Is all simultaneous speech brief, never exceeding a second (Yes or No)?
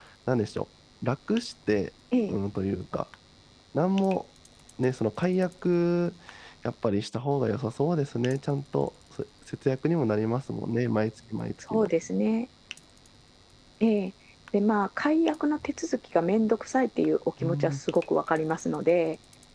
Yes